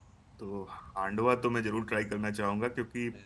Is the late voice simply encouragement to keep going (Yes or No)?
Yes